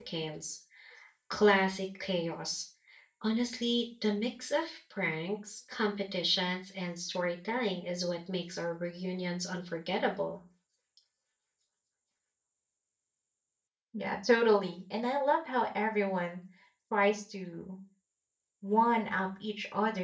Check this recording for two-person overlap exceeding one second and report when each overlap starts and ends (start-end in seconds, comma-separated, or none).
none